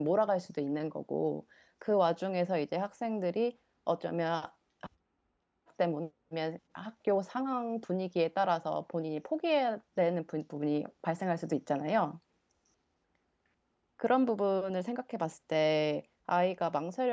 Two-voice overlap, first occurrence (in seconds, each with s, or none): none